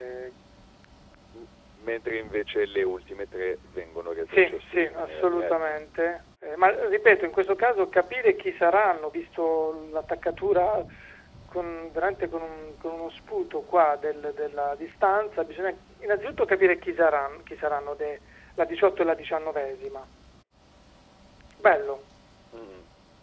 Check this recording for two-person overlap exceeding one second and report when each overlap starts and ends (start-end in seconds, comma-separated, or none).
4.3-5.8